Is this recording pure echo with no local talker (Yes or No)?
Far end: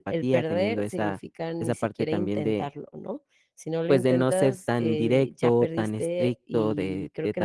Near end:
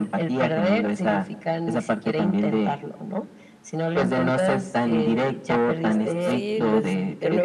No